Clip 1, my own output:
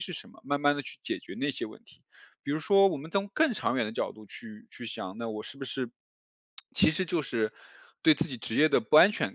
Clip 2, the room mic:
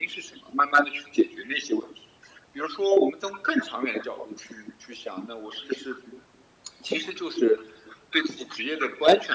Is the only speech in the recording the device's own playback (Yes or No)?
Yes